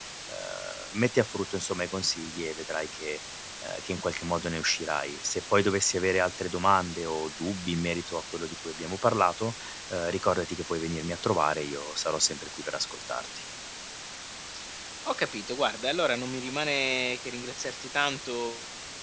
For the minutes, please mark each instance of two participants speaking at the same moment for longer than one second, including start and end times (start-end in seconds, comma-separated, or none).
none